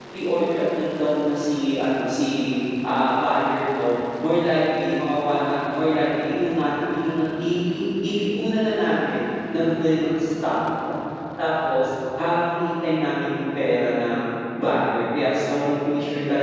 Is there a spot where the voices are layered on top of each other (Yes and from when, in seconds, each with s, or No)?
No